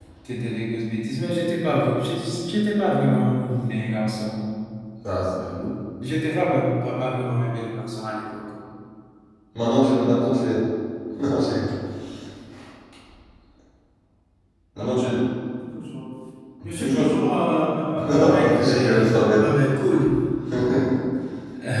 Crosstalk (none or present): present